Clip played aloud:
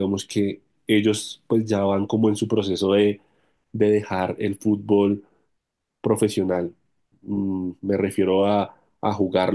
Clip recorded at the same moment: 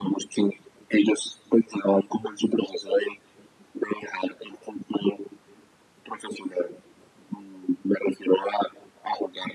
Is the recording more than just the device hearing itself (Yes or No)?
No